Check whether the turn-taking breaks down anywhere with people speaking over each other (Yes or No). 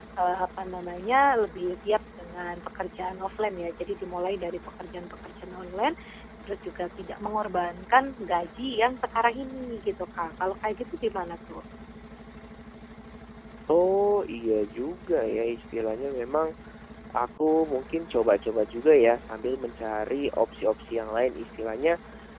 No